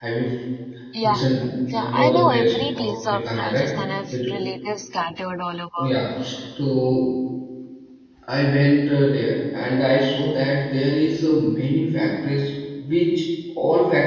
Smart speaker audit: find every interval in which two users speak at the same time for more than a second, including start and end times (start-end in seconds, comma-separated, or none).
1.7-3.7